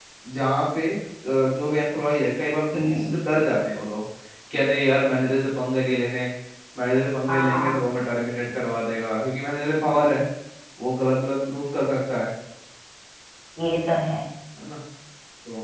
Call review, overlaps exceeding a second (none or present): none